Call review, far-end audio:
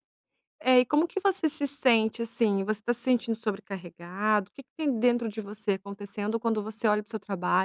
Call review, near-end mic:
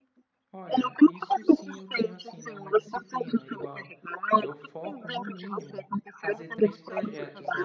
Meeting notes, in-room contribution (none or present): present